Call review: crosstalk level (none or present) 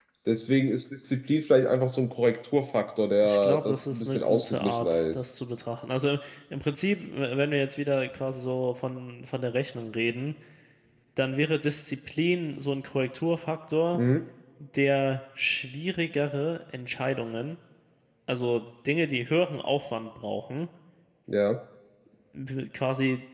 present